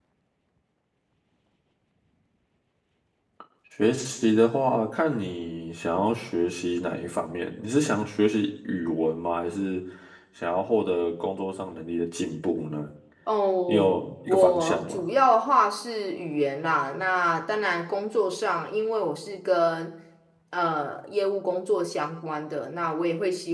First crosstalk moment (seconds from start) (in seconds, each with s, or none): 13.7 s